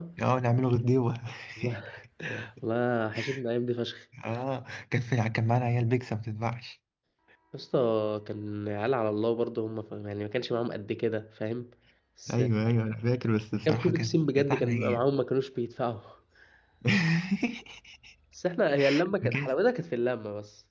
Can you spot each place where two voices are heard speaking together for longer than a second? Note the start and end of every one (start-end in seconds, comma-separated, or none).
13.7-15.1